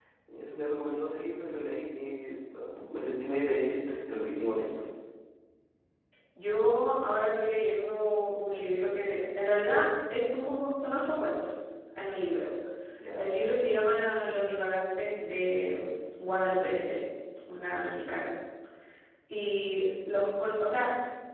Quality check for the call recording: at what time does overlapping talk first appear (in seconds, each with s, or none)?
none